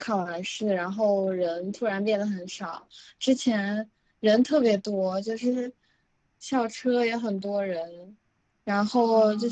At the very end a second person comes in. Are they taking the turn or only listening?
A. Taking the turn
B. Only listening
B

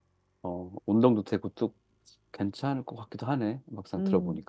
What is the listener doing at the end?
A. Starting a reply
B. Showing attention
A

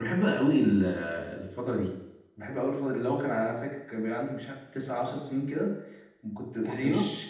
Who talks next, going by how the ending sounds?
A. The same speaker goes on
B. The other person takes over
A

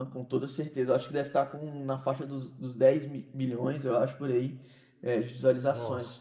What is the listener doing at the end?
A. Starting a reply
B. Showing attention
B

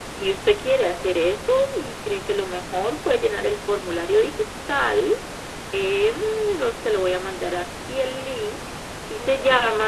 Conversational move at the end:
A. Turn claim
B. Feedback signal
B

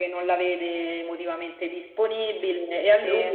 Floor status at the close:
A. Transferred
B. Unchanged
B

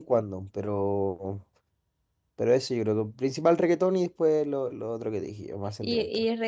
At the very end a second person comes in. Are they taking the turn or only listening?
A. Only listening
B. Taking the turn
B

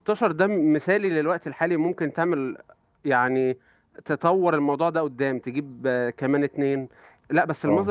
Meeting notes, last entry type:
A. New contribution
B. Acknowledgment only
B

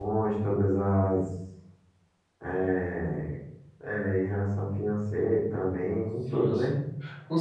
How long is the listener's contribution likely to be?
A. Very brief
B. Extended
B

